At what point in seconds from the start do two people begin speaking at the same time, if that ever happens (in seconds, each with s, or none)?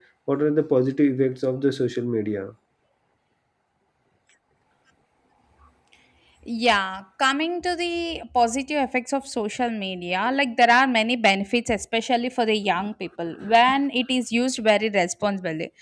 none